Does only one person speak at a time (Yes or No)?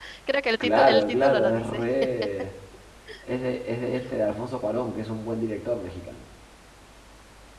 No